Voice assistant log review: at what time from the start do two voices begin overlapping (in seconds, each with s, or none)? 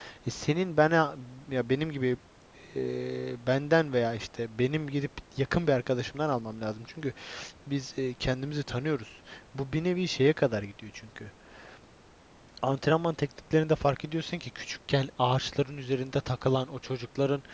none